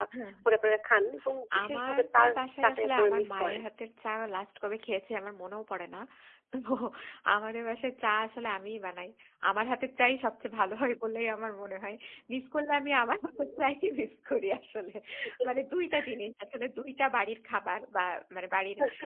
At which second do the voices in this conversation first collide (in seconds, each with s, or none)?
1.6 s